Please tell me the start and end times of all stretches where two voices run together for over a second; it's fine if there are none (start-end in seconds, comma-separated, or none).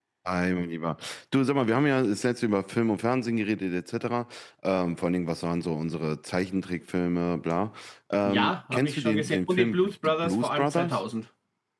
8.2-11.0